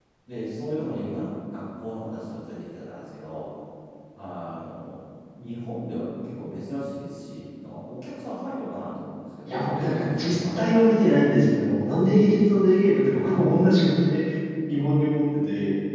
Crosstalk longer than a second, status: present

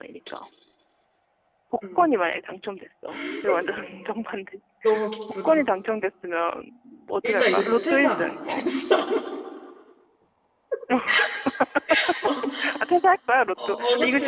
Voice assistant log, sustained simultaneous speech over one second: present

